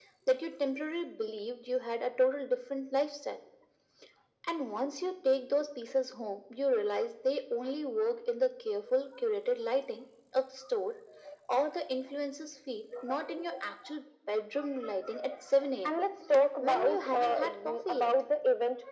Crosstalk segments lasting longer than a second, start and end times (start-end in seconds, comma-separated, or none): 16.6-18.1